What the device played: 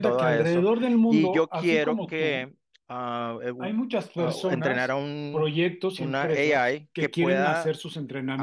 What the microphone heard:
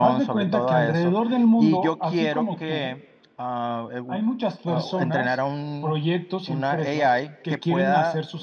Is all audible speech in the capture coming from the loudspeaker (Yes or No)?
Yes